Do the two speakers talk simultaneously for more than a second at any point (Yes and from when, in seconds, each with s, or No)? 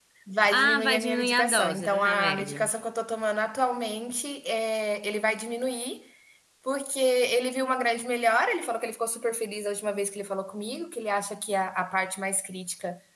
Yes, from 0.5 s